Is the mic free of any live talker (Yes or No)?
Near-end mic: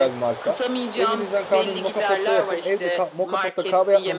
No